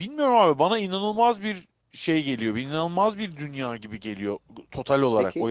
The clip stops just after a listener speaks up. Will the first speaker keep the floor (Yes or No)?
No